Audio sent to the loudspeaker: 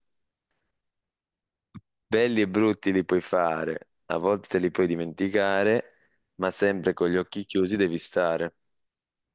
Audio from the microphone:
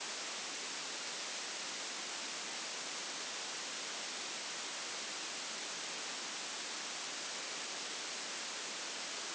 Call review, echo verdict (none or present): none